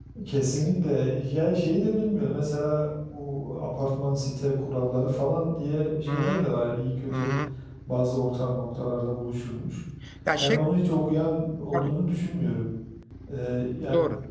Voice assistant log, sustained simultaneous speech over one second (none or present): none